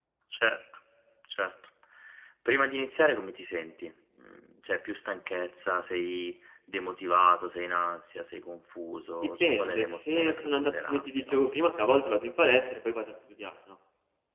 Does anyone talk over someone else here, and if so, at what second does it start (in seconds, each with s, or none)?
9.4 s